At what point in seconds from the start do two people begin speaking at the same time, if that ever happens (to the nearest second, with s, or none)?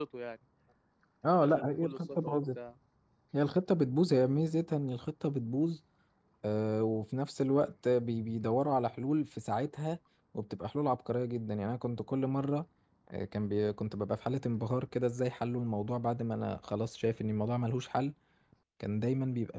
1 s